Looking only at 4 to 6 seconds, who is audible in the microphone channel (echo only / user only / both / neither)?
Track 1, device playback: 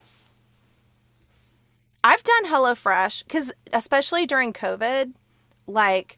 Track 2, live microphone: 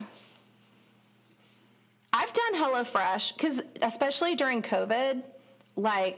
echo only